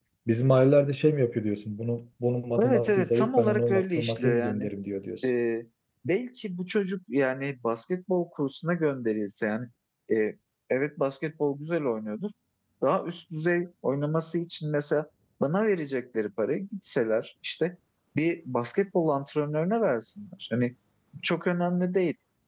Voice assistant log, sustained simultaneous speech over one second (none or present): present